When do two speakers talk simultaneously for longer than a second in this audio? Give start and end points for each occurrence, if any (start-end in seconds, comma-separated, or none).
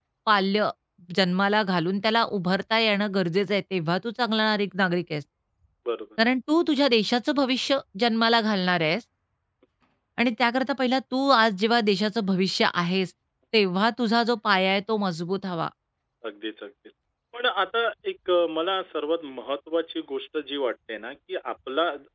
none